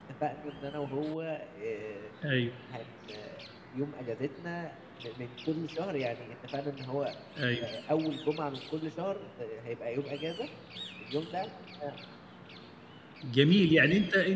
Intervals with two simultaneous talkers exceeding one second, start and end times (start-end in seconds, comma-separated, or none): none